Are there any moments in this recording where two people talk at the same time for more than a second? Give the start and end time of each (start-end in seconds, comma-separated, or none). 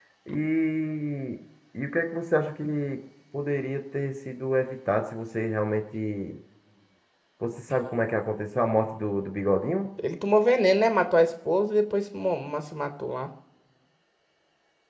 none